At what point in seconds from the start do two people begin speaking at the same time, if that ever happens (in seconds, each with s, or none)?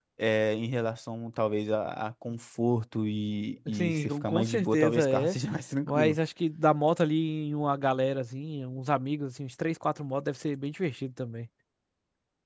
3.7 s